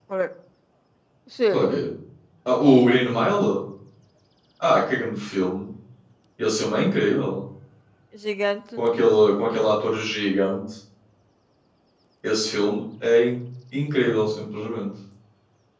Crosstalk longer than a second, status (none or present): none